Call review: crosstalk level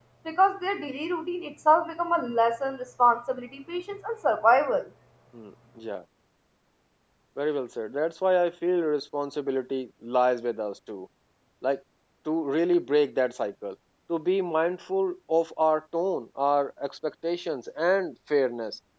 none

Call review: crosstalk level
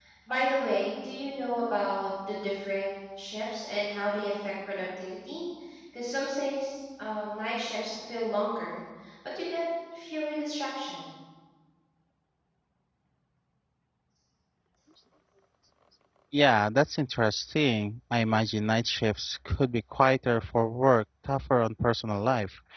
none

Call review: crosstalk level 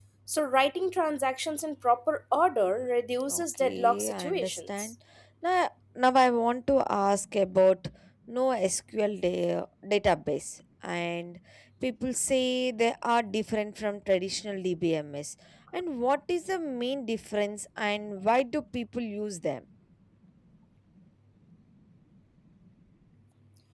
present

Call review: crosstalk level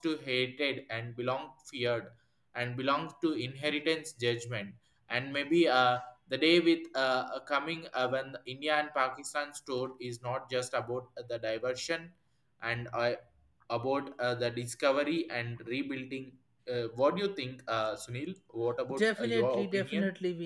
present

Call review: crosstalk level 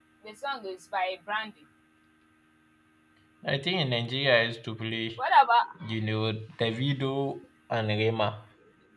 none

